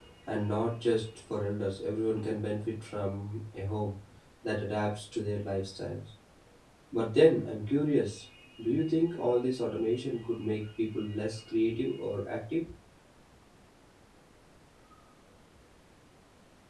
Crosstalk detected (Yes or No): No